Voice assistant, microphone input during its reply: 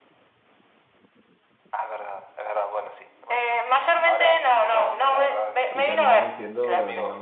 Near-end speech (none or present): present